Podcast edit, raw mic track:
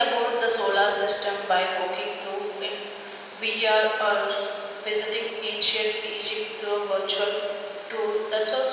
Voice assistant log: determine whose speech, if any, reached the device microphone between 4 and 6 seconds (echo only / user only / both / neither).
echo only